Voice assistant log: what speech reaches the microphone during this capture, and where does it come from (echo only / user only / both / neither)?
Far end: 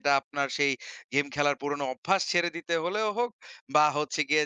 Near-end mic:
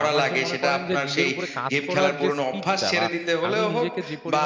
both